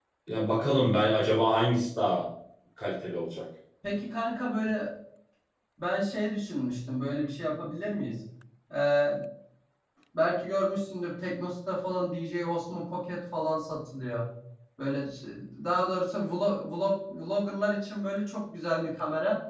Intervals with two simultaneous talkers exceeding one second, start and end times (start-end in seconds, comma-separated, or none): none